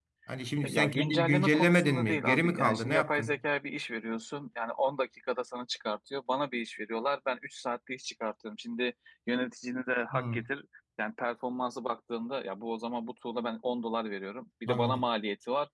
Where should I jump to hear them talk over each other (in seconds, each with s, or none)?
0.6 s